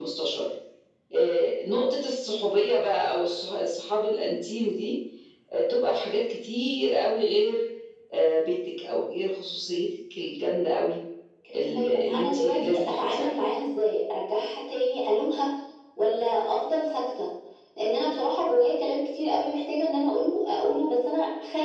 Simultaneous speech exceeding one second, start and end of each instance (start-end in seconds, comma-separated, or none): 11.8-13.3